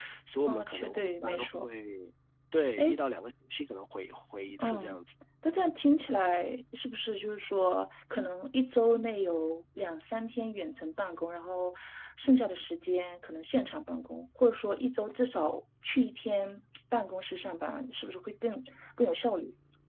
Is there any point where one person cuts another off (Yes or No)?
Yes